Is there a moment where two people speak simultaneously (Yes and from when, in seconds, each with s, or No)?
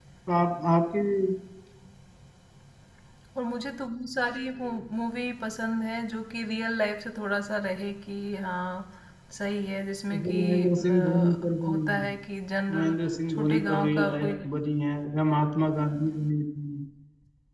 Yes, from 10.1 s